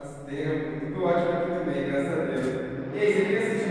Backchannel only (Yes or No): Yes